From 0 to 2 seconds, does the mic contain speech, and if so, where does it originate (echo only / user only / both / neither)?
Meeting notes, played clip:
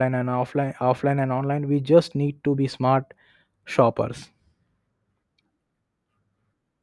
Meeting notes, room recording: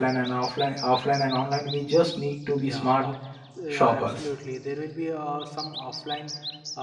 echo only